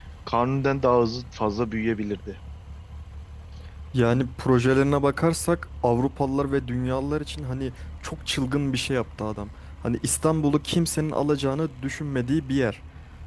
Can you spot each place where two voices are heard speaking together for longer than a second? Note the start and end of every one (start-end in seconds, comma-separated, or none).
none